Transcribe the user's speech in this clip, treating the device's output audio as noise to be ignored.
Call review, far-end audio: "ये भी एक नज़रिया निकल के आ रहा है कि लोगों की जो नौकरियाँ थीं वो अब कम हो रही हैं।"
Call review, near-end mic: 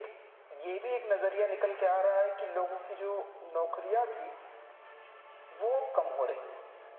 none

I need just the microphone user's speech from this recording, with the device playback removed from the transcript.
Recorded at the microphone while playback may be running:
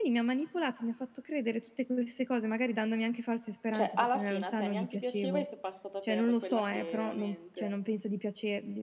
Cioè alla fine a te neanche piaceva e sei passata per quella che veramente

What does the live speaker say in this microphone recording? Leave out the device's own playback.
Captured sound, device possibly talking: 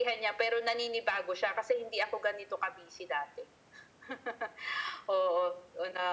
none

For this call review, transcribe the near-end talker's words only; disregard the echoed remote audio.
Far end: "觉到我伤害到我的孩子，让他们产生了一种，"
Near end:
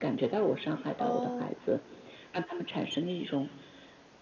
哦。

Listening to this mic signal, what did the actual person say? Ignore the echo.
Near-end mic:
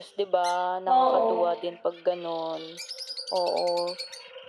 Oo,

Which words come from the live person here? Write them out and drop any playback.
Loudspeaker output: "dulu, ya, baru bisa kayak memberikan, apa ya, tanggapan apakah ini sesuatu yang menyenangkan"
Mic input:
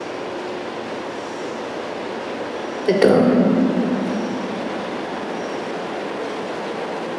Betul.

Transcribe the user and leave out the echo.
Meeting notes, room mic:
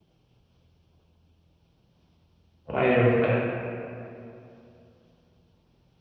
أيوه، فاهم.

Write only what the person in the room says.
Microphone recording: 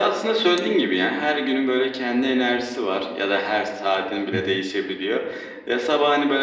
Hı hı.

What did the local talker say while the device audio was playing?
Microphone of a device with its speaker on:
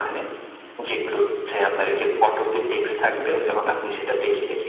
আচ্ছা।

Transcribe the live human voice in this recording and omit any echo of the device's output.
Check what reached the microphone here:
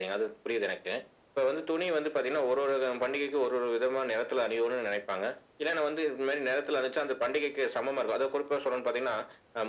none

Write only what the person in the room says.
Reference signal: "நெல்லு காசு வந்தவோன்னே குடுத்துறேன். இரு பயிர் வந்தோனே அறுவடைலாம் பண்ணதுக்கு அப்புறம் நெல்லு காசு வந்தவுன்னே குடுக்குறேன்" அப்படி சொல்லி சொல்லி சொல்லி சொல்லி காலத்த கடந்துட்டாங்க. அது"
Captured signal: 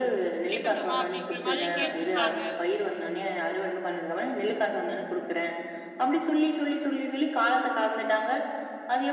கேக்கட்டுமா அப்டிங்கிற மாரி கேட்டிருப்பாங்க.

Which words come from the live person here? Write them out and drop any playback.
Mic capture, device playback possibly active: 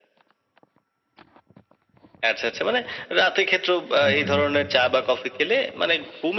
একদমই, একদমই।

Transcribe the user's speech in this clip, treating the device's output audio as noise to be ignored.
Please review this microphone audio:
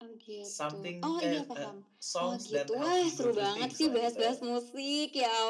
Something eh, eee, Songs that help me go through things-lah, gitu.

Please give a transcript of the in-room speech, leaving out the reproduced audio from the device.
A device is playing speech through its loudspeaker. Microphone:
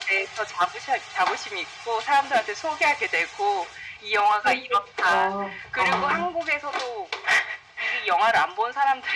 "해주고 싶다." 아

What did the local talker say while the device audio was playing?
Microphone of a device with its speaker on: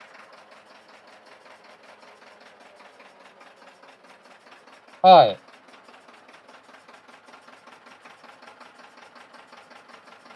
はい。

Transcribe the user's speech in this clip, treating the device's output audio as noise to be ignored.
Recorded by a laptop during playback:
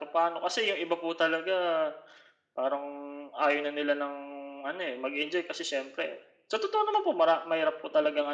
none

